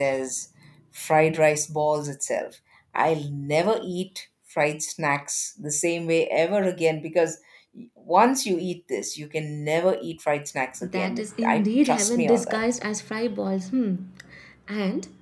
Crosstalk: present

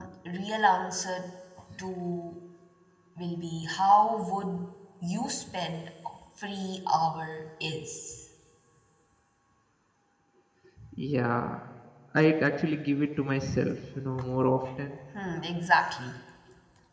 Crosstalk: none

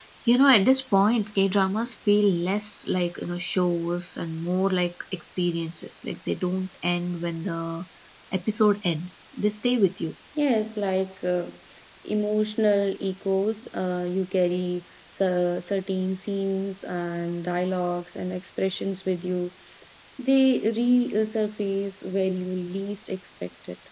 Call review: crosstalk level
none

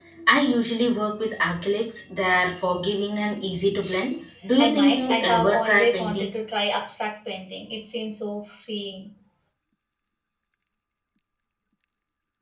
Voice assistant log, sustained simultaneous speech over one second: present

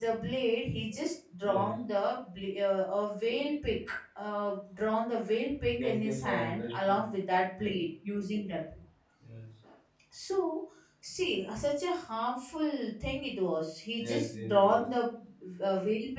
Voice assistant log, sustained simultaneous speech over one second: present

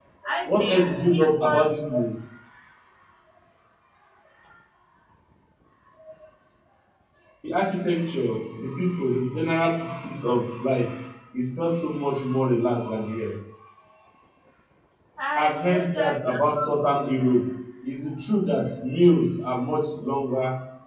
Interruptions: present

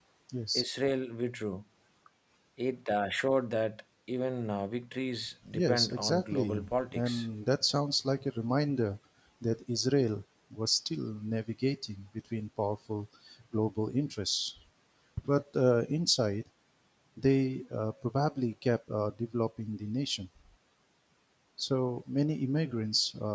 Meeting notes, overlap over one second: present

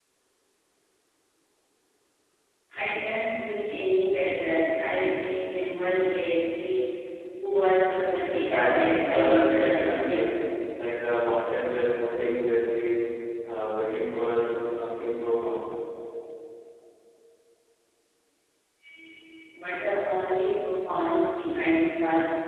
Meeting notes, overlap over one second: present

